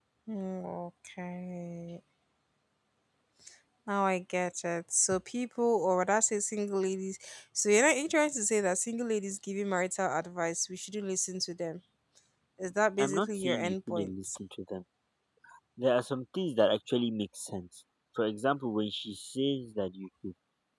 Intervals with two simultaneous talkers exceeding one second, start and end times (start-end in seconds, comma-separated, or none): 13.0-14.4